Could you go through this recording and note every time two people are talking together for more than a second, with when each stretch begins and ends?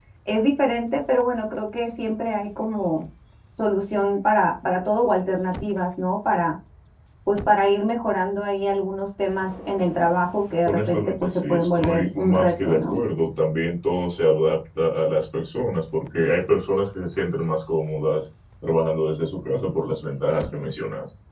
10.7-13.0

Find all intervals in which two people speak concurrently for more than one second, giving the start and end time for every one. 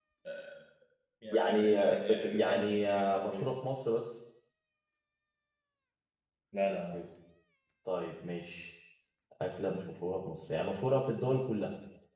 1.3-3.4

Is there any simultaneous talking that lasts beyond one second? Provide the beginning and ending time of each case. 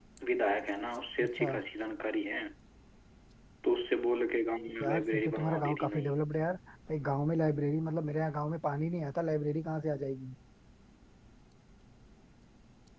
4.8-6.2

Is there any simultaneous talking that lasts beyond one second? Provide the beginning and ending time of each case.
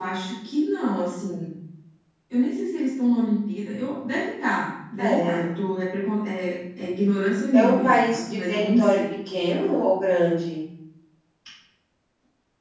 7.5-9.1

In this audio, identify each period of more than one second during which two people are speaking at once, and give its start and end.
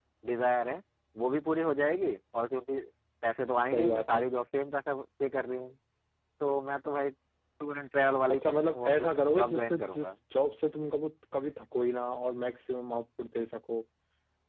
8.3-10.1

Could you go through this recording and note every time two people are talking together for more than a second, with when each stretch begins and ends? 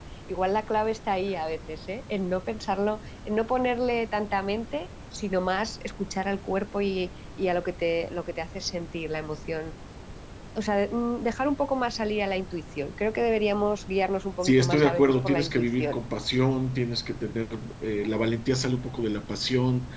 14.4-16.0

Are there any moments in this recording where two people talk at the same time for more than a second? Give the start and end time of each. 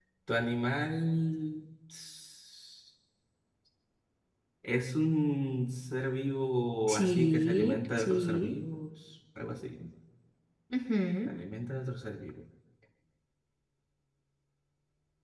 6.9-8.5

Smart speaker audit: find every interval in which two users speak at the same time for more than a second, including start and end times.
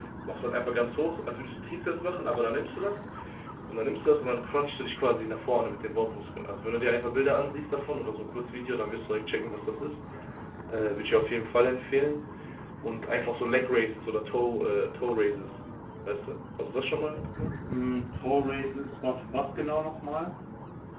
none

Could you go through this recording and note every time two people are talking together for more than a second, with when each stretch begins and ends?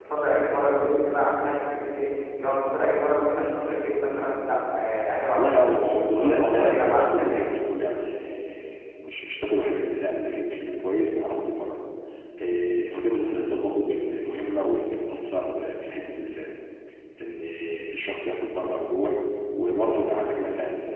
5.3-7.5

